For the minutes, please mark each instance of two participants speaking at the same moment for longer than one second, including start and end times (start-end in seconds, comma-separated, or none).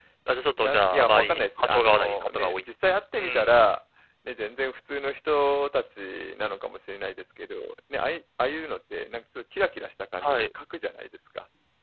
0.6-2.6